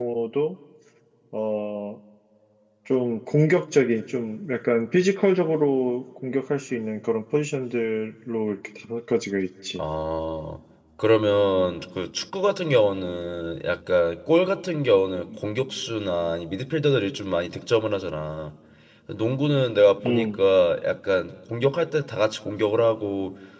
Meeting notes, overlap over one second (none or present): none